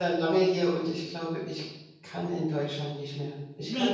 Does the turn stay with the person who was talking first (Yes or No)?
No